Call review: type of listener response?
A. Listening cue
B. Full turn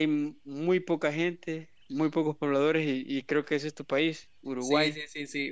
B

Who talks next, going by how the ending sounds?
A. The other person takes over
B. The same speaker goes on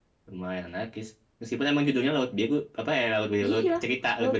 A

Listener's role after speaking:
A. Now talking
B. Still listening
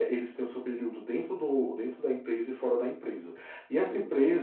B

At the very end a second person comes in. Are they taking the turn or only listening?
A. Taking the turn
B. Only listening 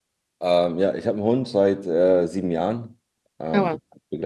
B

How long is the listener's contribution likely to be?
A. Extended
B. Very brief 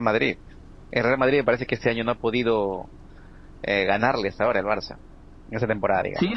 A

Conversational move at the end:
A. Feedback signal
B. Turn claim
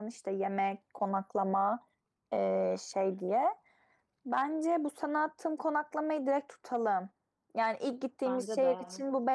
A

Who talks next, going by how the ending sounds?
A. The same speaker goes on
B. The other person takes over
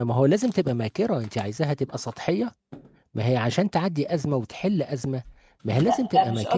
B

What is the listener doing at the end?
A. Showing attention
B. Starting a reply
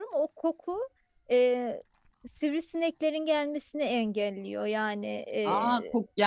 B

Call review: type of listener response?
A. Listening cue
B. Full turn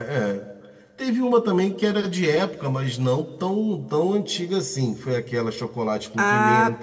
B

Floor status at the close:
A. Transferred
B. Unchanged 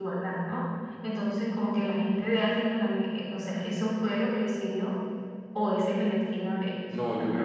A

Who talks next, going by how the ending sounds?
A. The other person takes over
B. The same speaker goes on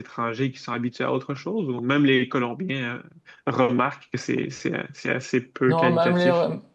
A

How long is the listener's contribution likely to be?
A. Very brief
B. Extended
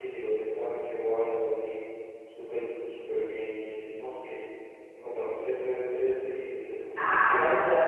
B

